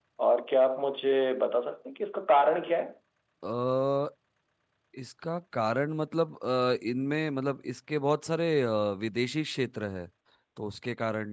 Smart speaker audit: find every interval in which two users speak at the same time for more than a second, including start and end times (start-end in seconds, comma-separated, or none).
none